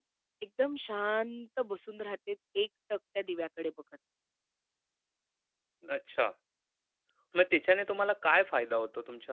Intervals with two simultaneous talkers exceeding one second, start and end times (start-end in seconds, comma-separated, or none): none